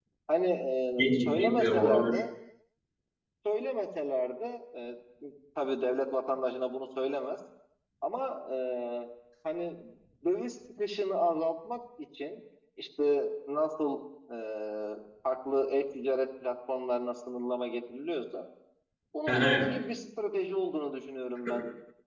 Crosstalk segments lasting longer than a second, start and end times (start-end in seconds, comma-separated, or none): 1.0-2.2